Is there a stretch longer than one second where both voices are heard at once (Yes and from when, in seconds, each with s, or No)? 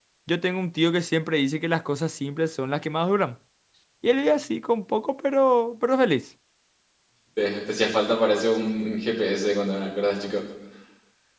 No